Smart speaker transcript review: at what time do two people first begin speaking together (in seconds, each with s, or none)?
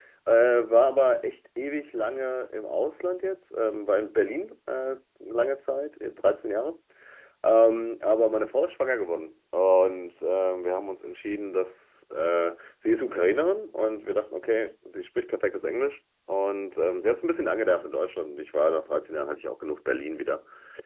none